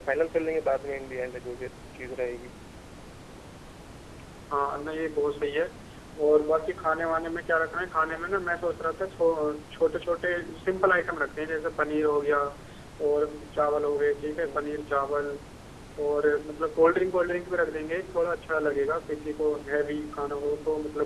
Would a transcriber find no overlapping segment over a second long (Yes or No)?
Yes